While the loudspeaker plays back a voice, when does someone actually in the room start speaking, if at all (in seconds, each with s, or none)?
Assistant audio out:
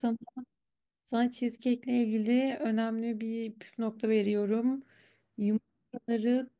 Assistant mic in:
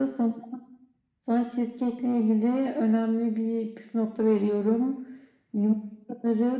none